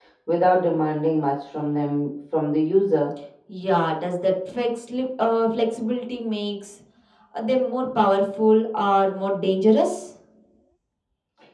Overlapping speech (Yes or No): No